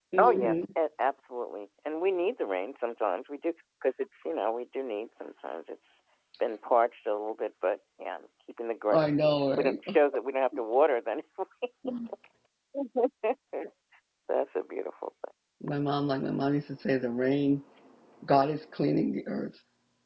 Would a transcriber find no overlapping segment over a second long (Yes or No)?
Yes